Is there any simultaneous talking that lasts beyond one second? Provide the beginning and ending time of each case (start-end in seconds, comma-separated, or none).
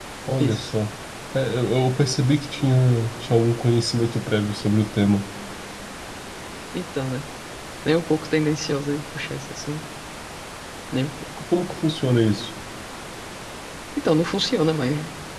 none